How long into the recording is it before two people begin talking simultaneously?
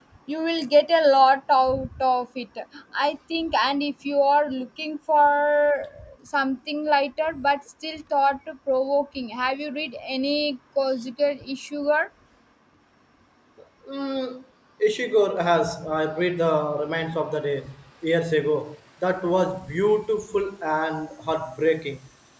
none

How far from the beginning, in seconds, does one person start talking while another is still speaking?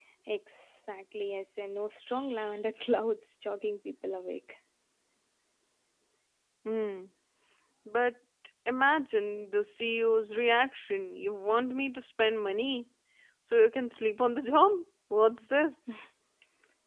none

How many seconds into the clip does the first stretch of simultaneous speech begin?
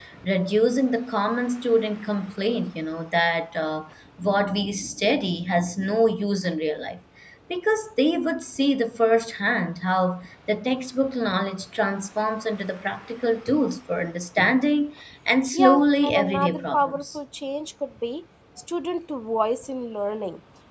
15.5 s

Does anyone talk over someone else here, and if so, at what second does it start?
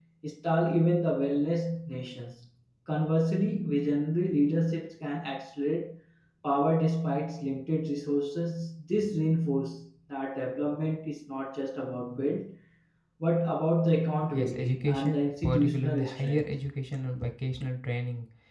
14.3 s

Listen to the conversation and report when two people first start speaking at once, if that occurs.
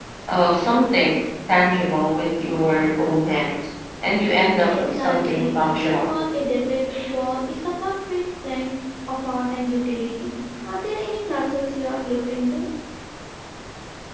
4.7 s

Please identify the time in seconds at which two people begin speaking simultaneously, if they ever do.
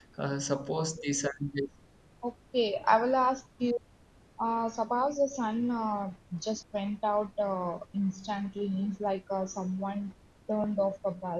none

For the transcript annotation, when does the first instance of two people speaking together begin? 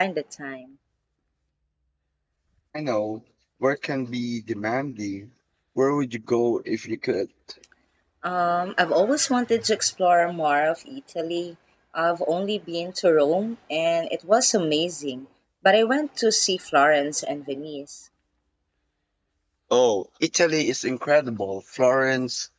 none

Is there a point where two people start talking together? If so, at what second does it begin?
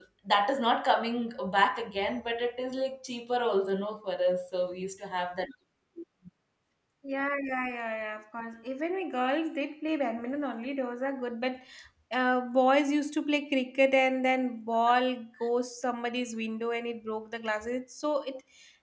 none

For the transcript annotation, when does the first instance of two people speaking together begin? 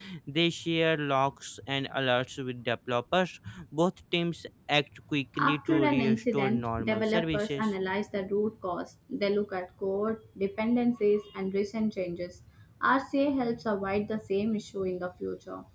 5.4 s

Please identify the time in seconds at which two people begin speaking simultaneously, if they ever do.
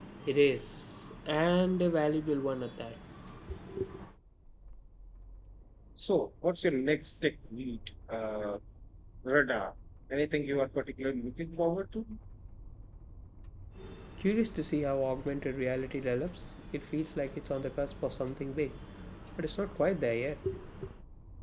none

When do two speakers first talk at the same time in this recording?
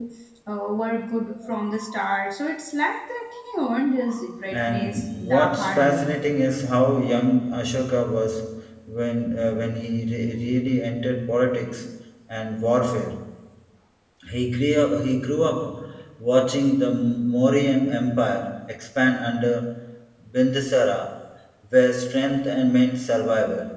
4.5 s

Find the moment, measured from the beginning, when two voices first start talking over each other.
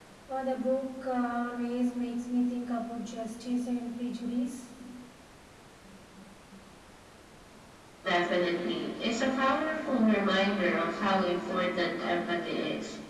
none

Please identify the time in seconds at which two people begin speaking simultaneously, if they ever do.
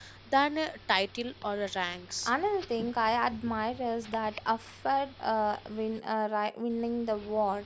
none

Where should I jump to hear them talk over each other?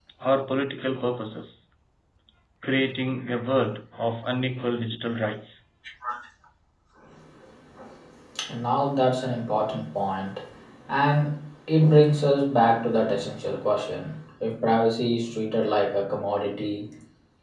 none

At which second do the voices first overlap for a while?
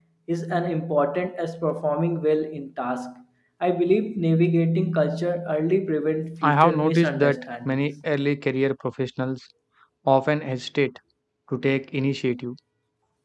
6.4 s

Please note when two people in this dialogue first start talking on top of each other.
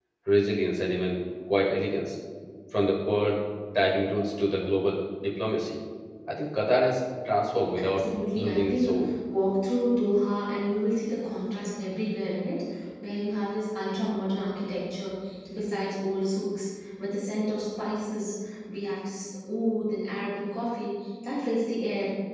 7.8 s

